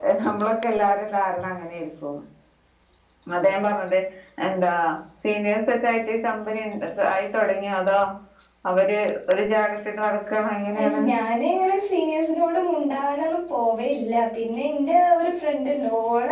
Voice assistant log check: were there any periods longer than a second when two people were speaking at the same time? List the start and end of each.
none

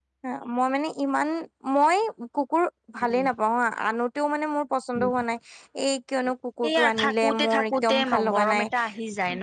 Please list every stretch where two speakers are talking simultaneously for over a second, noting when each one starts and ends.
6.7-8.4

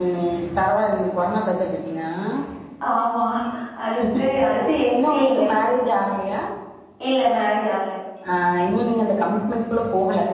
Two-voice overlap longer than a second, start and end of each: none

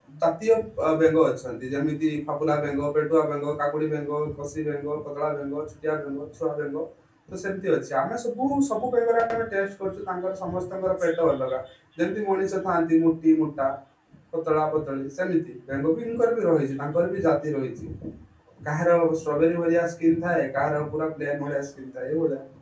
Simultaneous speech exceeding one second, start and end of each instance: none

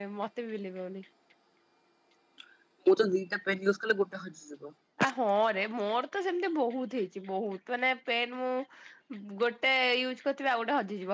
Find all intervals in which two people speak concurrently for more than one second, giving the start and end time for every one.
none

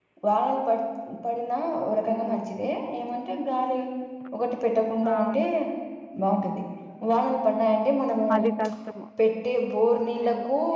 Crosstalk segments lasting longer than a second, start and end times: none

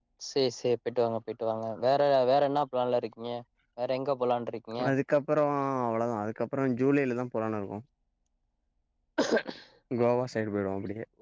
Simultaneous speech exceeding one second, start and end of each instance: none

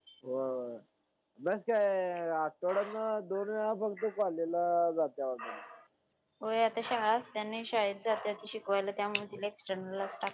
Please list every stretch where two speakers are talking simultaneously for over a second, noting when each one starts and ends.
none

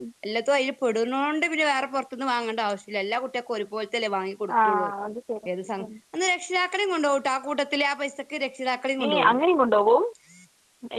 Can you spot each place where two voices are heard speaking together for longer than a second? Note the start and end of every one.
none

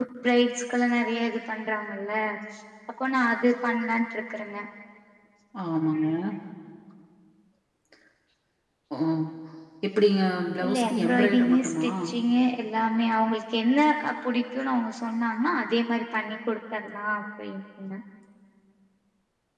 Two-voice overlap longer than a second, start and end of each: 10.6-11.9

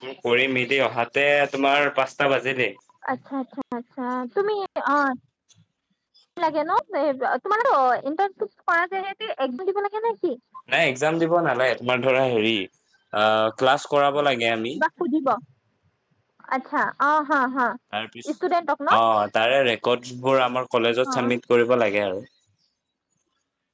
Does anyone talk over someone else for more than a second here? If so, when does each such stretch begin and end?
none

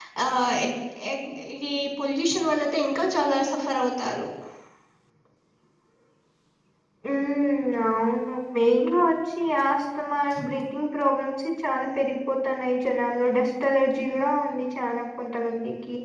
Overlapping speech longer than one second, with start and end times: none

